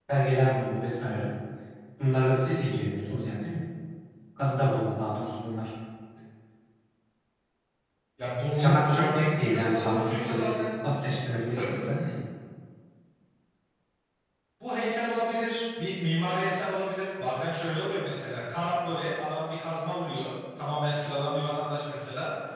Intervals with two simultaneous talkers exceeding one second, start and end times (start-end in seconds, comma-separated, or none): 8.6-10.5